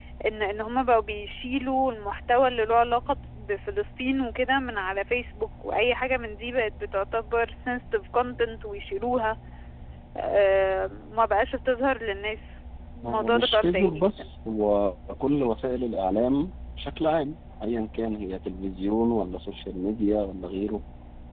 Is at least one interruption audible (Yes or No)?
Yes